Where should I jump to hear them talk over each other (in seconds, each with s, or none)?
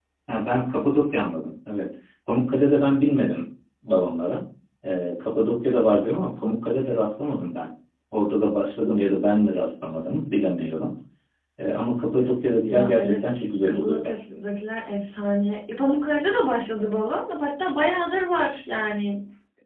12.7 s